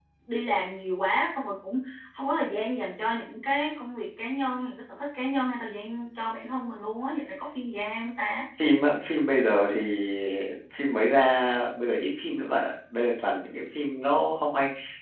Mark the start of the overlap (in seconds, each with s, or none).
none